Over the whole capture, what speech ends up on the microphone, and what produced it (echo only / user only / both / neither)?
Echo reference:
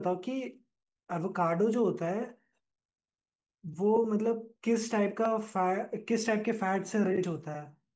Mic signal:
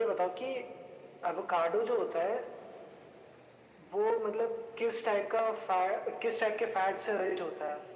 echo only